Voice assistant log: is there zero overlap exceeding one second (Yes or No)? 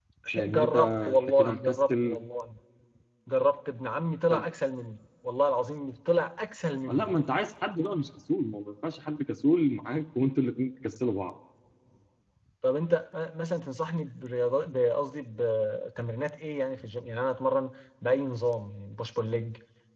No